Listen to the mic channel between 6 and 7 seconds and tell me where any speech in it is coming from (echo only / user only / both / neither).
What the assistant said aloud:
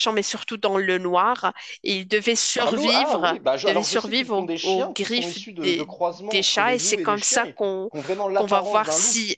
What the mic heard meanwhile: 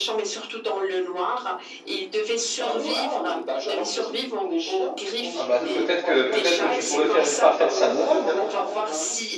both